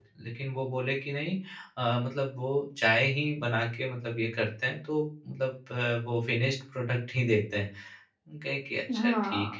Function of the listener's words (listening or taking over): taking over